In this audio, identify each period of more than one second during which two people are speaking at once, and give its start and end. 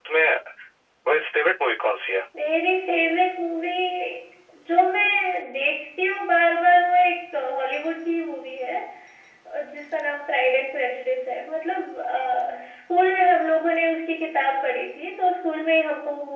none

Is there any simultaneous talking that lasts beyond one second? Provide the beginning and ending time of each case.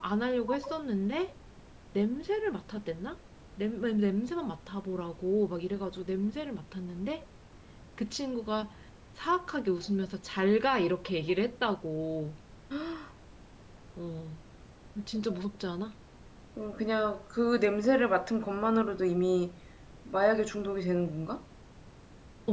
none

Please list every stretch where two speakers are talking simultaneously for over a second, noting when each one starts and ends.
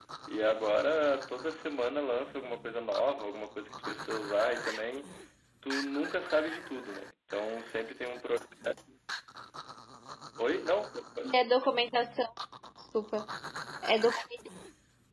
none

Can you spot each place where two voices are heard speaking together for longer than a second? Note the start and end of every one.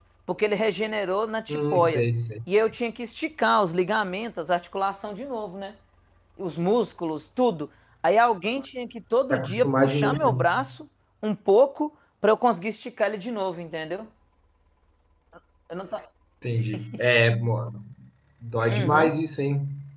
9.3-10.6

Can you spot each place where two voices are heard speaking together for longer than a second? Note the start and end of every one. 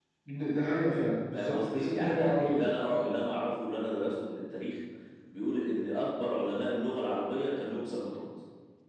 1.3-2.6

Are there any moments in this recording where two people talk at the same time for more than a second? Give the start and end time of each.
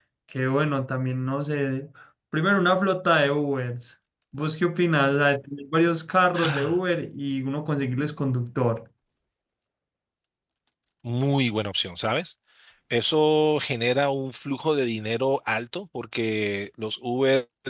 none

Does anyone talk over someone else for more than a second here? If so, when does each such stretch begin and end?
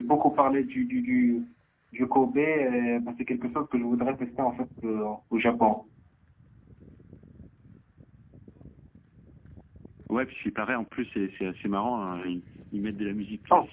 none

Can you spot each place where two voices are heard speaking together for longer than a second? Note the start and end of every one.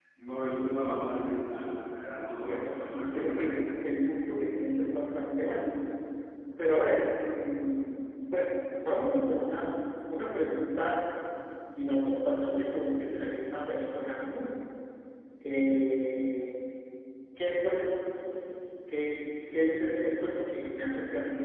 2.4-3.6

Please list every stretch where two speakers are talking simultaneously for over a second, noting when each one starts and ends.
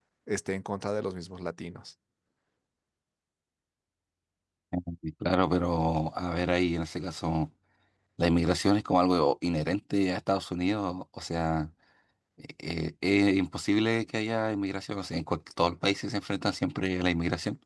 none

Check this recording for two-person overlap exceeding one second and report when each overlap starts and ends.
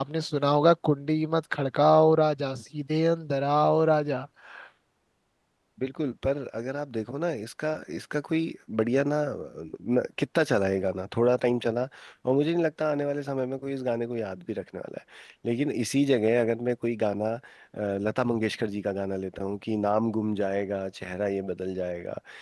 none

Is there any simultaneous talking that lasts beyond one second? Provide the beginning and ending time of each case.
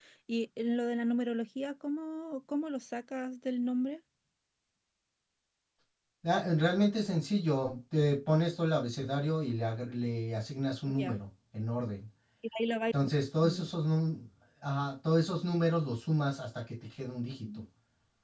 none

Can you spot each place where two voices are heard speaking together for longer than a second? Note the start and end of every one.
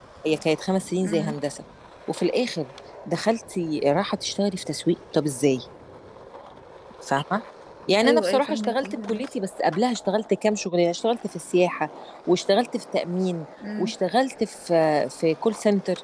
8.0-9.2

